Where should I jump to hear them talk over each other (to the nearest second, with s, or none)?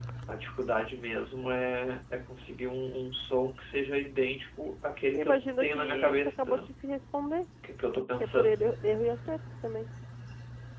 5 s